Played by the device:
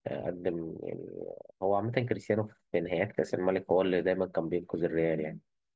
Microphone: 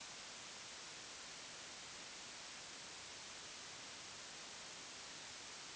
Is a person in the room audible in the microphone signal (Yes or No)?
No